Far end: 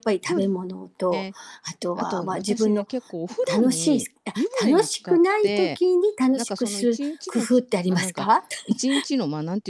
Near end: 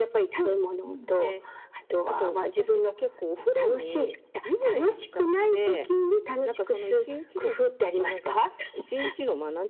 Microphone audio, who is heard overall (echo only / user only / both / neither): both